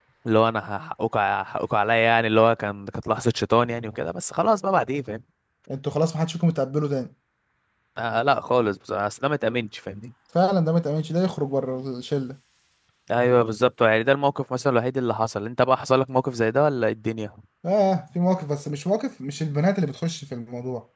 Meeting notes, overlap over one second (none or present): none